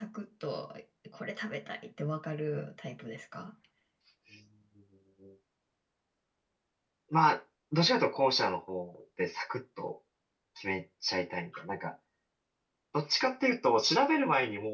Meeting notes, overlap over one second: none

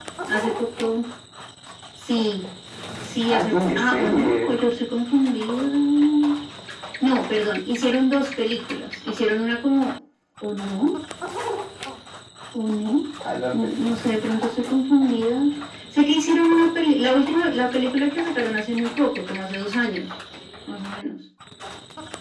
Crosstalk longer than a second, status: present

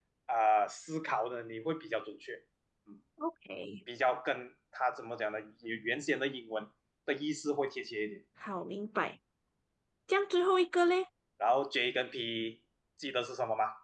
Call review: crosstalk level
none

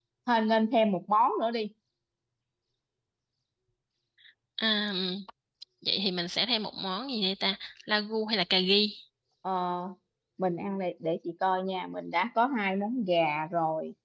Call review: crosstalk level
none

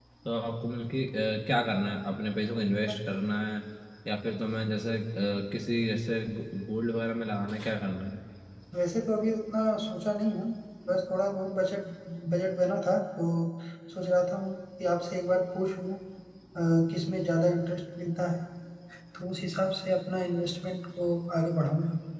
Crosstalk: none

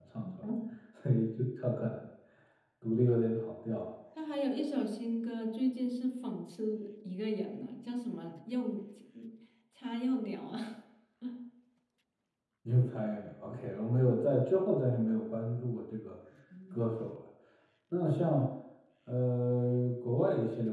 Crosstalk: none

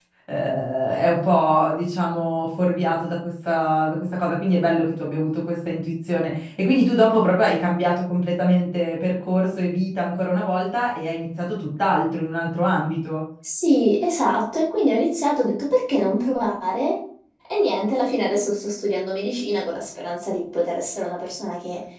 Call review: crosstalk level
none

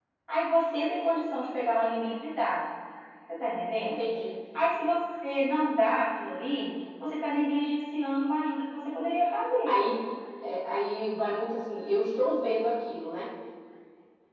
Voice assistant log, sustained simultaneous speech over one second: none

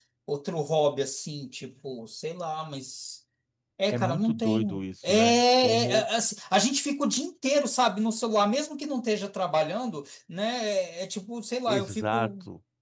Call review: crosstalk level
present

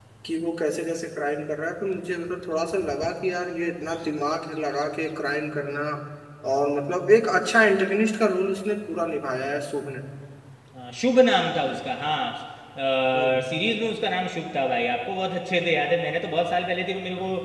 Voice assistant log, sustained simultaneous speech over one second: none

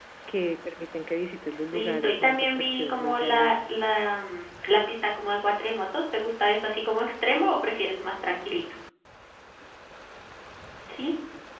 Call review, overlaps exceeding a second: present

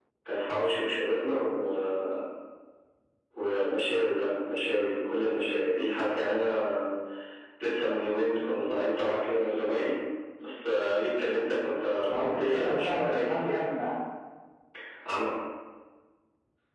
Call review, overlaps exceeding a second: present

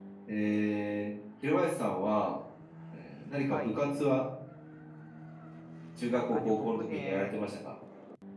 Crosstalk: present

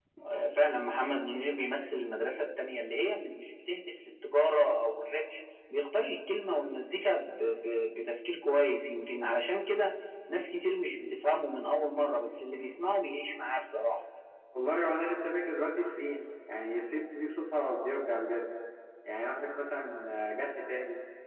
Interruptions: none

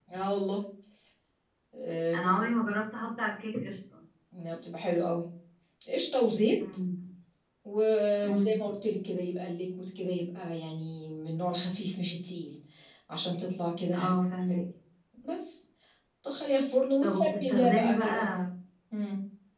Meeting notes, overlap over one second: present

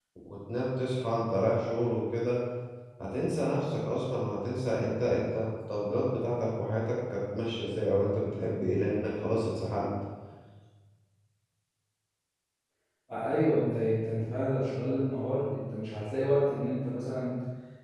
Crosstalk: none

